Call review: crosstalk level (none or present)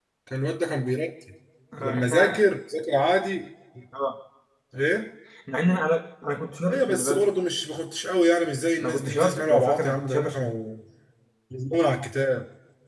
present